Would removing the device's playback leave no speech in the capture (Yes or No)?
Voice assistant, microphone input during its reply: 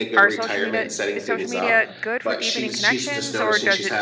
No